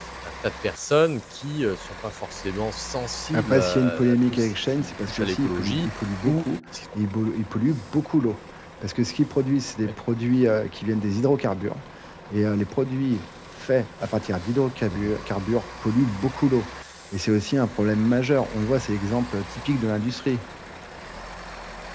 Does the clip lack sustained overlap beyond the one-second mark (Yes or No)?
No